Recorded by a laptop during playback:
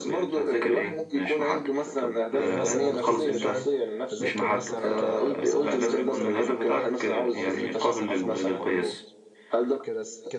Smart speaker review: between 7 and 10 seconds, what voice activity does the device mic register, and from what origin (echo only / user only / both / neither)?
both